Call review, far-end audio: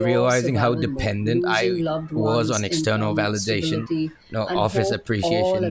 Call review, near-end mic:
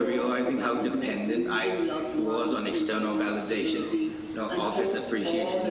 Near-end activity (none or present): none